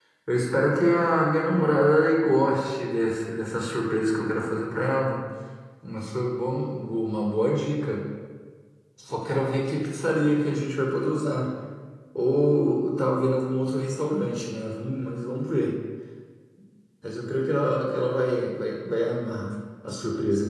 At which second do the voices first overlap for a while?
none

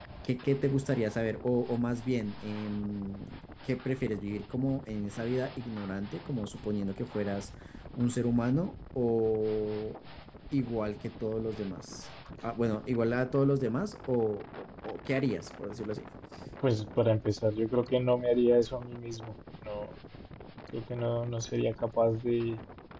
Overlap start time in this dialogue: none

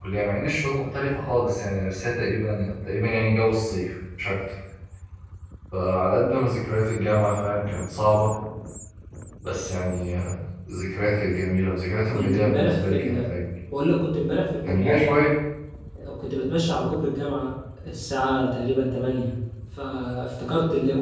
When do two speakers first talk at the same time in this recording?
12.1 s

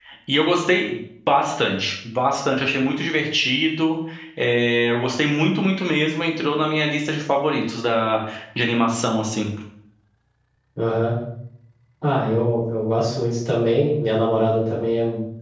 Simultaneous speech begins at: none

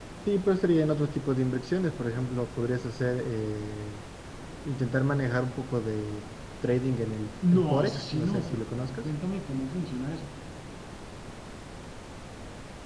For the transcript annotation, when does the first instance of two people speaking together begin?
7.4 s

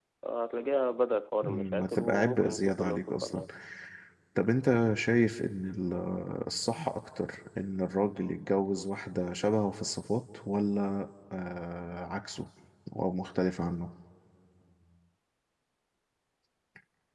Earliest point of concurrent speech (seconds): 1.4 s

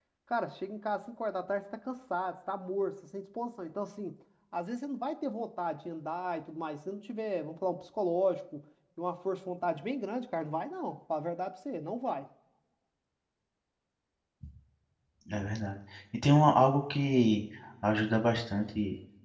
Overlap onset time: none

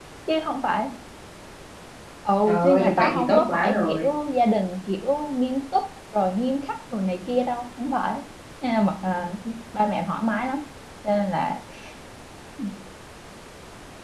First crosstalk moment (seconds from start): 2.5 s

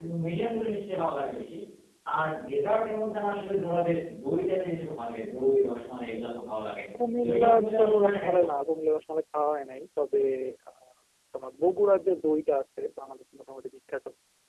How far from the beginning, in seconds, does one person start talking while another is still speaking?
7.2 s

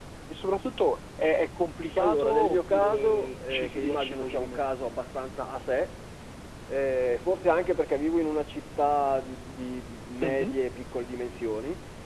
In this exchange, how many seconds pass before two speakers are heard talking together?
2.0 s

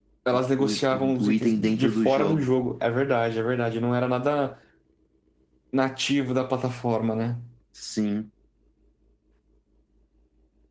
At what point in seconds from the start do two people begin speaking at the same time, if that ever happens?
0.6 s

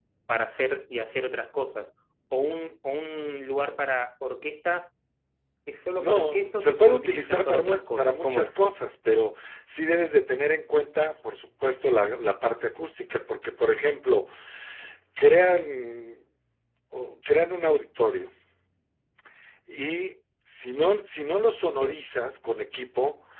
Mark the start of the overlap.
6.0 s

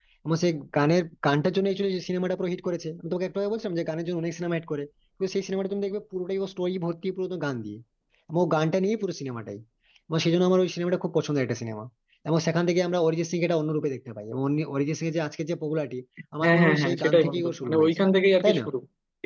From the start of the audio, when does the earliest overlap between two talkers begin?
16.4 s

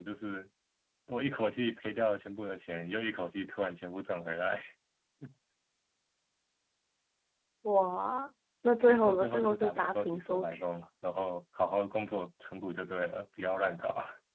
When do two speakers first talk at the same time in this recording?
8.8 s

